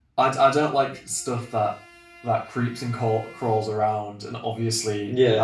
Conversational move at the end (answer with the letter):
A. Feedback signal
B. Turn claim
A